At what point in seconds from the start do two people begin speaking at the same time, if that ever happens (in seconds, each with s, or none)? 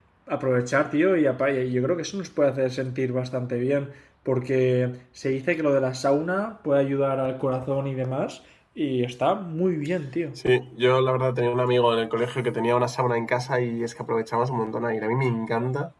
none